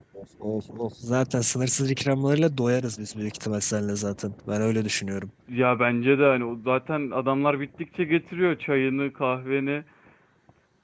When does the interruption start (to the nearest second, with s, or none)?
none